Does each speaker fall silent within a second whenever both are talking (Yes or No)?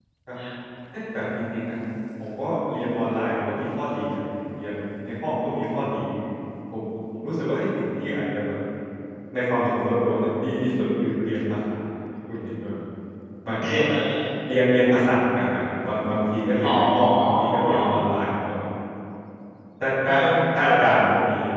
No